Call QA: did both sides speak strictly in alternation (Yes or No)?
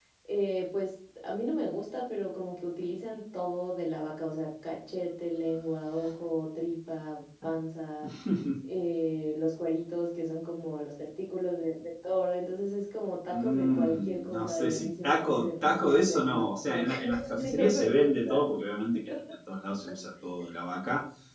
No